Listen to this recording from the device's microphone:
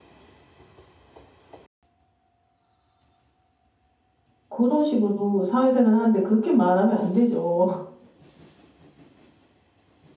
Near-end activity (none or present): present